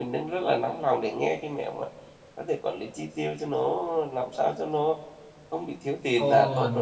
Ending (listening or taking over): taking over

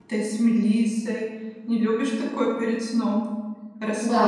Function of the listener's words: taking over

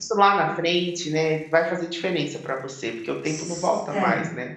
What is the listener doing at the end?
taking over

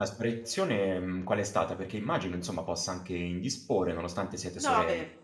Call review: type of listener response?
taking over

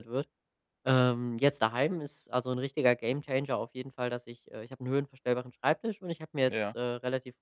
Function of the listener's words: listening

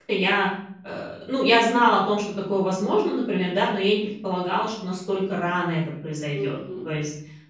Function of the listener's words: listening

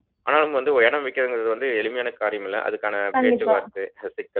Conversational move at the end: listening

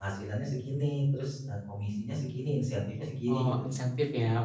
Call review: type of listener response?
taking over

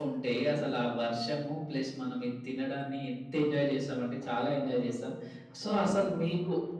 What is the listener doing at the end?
listening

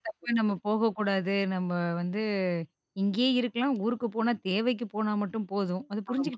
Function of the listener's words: taking over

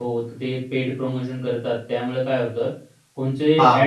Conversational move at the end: taking over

